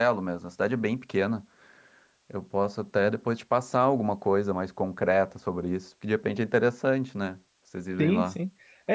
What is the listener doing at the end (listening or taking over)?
taking over